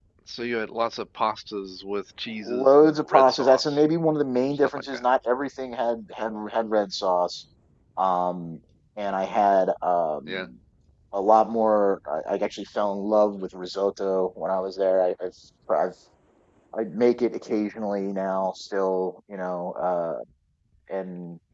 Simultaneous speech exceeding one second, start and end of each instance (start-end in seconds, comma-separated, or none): 2.5-3.9